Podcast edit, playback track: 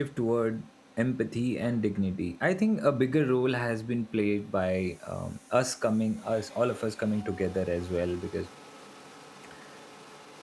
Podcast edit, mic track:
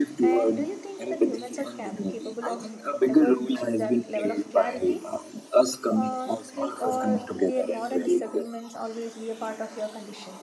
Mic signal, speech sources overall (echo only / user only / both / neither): both